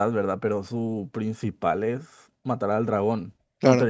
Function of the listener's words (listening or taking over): listening